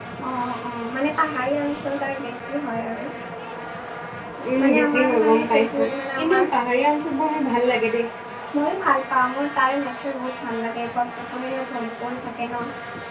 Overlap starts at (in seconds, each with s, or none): 4.6 s